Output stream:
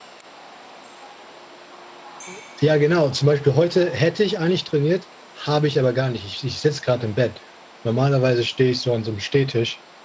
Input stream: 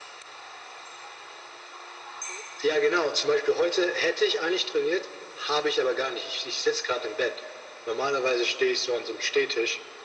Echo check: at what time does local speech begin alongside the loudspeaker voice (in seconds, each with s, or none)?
none